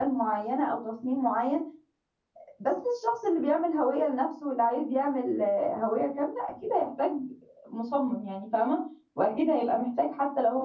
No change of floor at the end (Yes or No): Yes